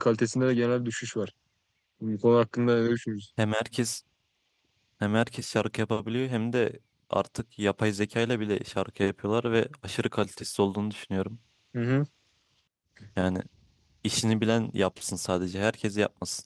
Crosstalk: none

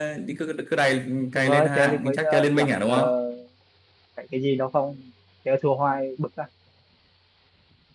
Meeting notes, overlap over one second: present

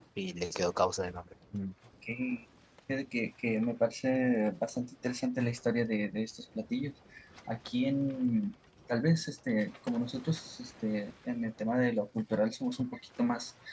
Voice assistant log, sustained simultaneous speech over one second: none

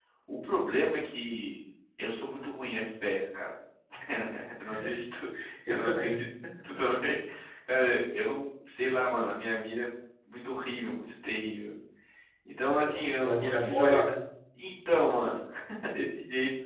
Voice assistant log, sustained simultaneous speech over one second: present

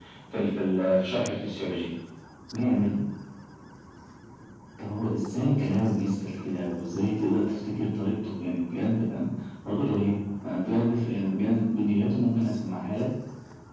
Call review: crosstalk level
none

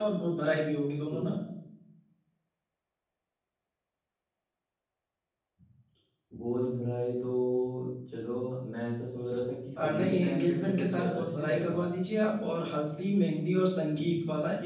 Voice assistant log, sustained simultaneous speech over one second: present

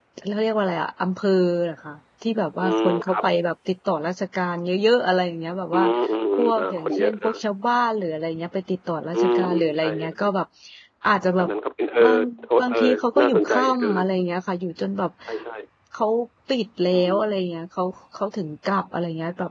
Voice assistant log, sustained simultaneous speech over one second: present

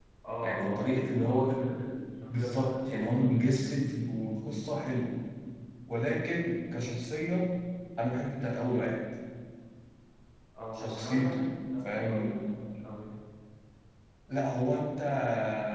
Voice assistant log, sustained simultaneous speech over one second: present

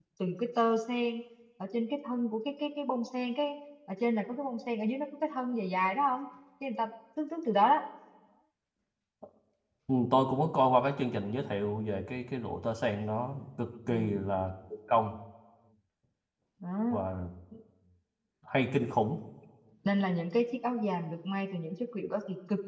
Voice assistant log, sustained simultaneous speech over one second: none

